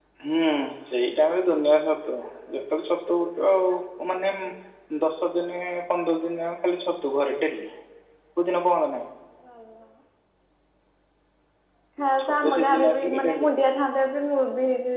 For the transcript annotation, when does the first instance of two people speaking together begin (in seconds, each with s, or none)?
12.2 s